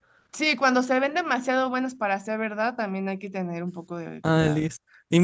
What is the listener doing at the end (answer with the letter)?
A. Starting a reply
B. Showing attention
A